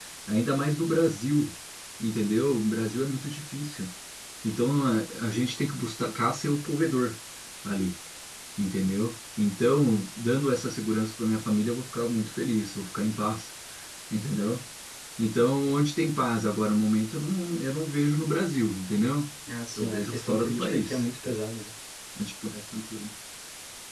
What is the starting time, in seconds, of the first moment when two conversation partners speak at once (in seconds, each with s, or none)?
19.8 s